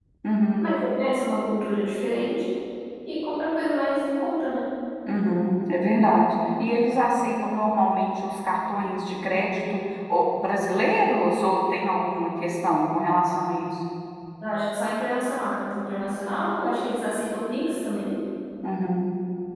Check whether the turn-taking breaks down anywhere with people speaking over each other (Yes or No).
No